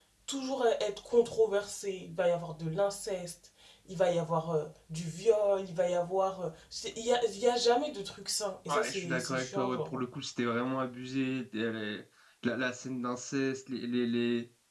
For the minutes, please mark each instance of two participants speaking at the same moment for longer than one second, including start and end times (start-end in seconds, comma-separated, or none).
8.7-10.0